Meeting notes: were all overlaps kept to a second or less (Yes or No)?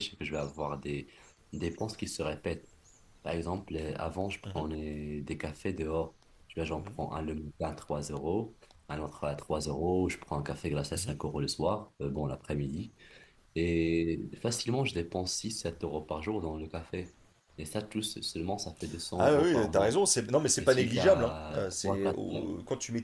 No